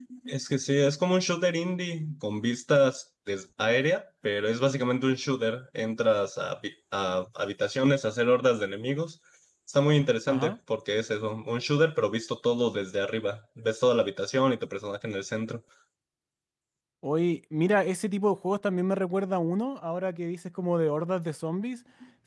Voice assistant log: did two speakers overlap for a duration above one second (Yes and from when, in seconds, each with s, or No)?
No